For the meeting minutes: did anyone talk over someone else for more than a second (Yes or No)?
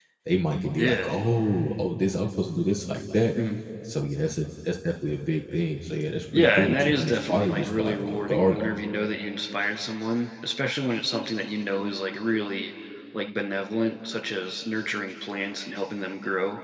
Yes